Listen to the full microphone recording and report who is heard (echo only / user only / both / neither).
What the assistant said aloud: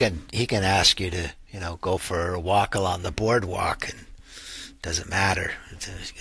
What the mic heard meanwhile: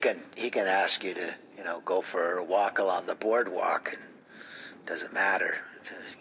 echo only